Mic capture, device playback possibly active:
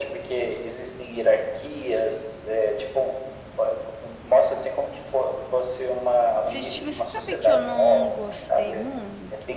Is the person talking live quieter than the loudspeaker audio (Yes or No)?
Yes